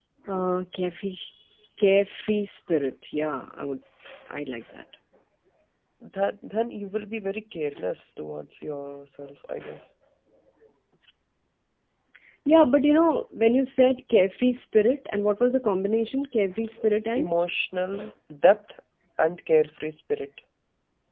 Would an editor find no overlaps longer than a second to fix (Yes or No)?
Yes